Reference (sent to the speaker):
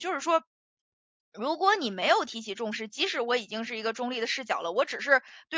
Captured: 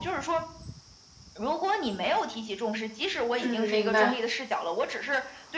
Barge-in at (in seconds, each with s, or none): 3.4 s